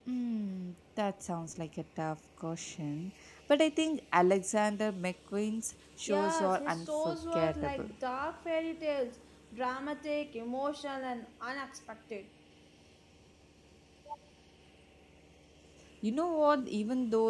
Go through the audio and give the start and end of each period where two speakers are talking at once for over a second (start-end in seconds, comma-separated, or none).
6.1-7.9